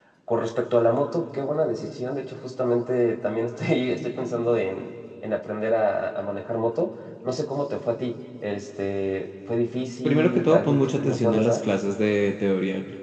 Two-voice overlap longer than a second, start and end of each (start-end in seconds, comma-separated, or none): 10.0-11.7